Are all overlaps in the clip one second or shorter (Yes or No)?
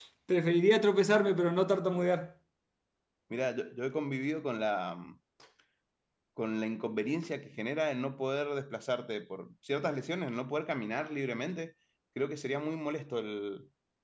Yes